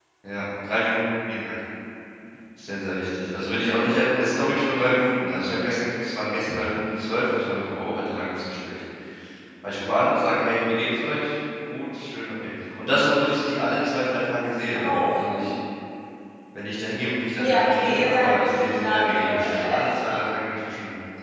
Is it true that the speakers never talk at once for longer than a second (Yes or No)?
No